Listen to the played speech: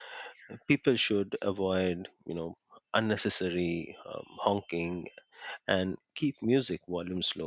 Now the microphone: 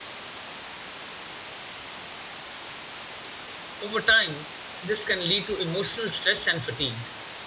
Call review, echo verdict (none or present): none